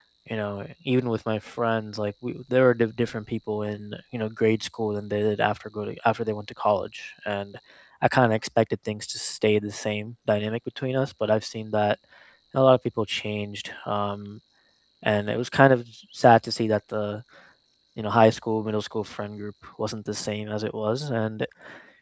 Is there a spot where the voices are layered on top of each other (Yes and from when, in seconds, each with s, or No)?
No